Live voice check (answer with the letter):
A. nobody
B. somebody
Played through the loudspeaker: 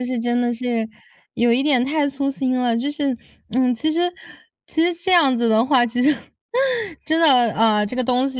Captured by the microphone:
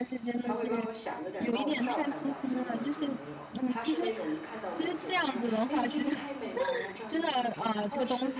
B